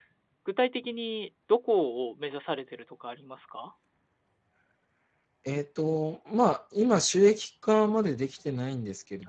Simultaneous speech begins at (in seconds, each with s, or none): none